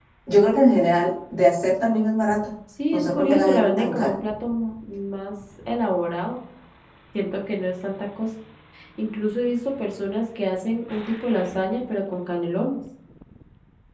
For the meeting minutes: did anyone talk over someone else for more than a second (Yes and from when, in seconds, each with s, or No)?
Yes, from 2.9 s